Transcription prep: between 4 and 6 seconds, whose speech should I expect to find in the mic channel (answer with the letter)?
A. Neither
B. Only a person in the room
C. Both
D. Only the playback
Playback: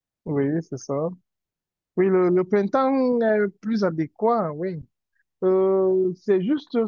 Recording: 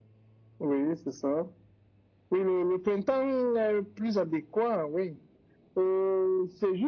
D